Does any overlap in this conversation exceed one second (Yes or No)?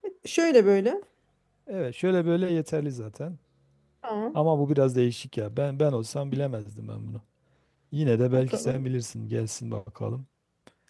No